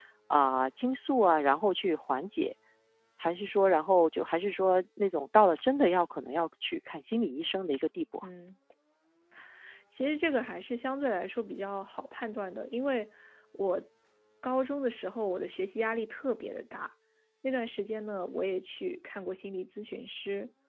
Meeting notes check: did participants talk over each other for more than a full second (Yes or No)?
No